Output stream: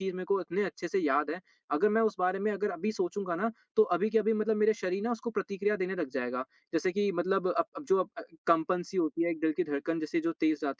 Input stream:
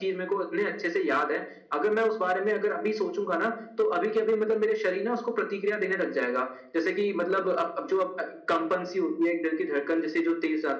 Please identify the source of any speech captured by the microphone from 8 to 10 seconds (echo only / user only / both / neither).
echo only